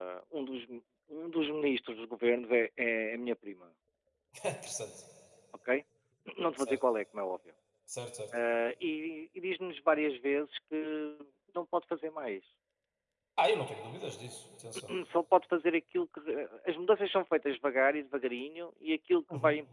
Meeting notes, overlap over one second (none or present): none